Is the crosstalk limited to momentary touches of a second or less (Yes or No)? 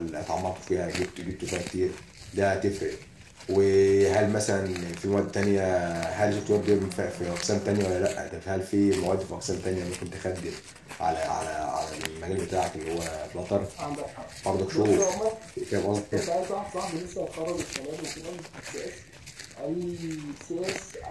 Yes